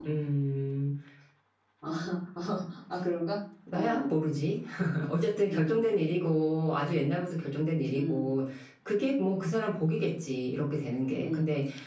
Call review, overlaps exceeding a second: none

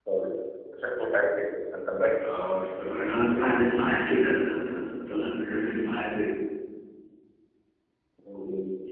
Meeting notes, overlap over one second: none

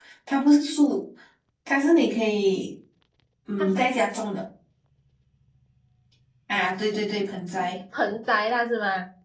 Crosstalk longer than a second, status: none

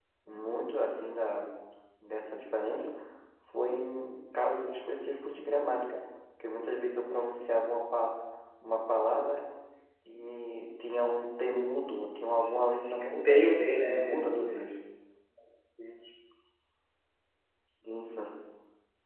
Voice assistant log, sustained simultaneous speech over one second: present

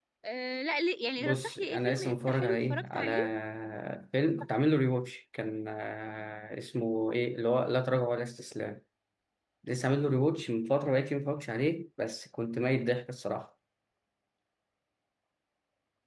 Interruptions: present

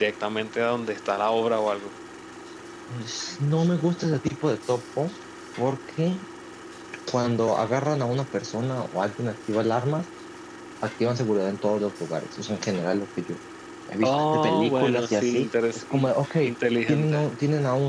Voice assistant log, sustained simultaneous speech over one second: present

